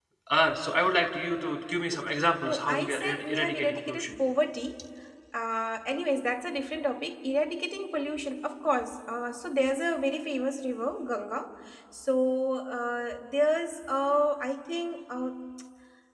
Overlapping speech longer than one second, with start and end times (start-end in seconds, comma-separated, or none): 2.4-4.2